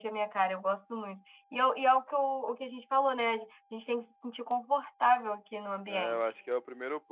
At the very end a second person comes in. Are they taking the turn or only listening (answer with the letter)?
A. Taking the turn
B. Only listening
A